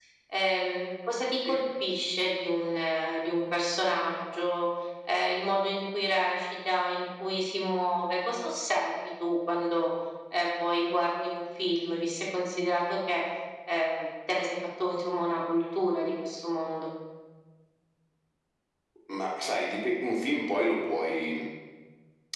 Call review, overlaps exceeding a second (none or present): none